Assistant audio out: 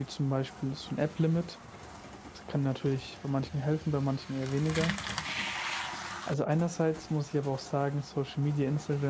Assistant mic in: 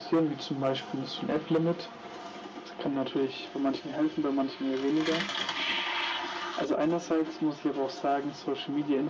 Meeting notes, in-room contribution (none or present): none